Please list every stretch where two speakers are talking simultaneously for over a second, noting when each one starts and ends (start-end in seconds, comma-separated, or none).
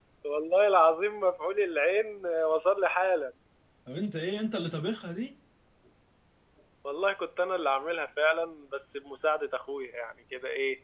none